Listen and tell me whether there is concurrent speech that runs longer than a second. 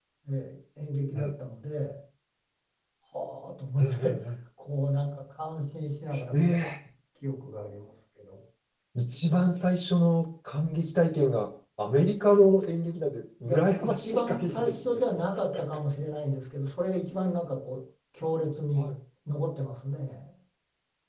Yes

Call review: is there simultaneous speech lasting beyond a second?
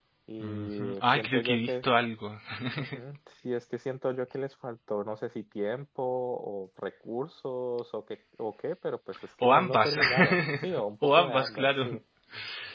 Yes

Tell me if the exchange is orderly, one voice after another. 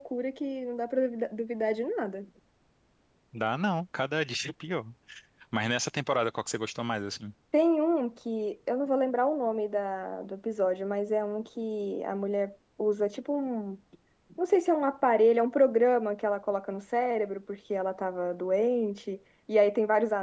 Yes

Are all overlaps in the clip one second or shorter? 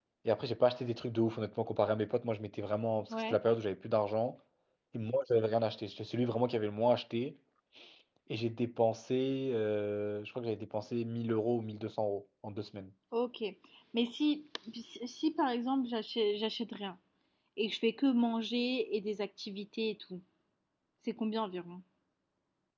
Yes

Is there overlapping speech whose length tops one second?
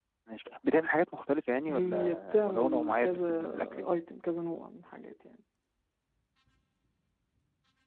Yes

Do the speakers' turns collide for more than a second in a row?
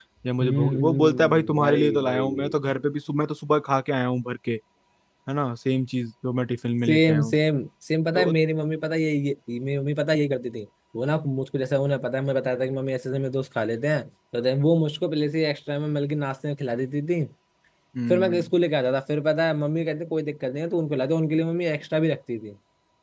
Yes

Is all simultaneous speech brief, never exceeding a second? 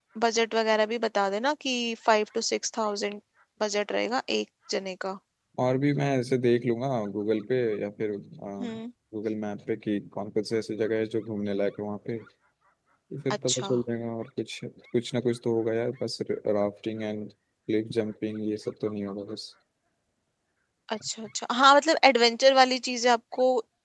Yes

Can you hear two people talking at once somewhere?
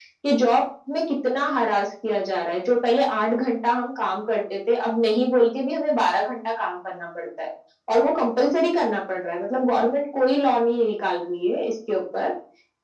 No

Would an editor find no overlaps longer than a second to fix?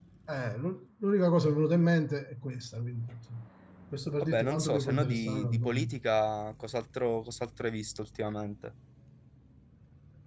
No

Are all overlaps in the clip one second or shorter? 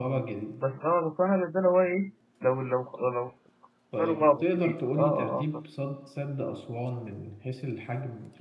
No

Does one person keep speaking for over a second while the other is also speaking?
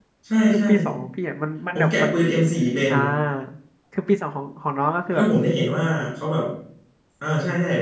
No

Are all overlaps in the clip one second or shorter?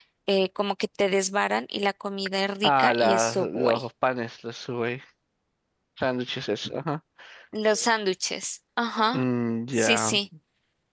No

